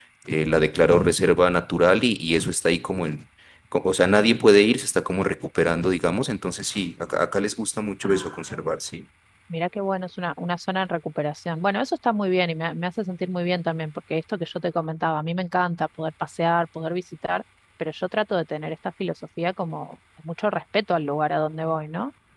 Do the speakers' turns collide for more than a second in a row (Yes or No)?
No